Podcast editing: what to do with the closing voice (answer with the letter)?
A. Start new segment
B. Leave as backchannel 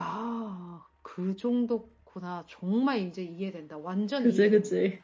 A